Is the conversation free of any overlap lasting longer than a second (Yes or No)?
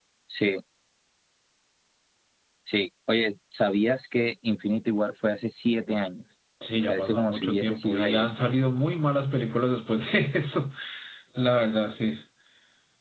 No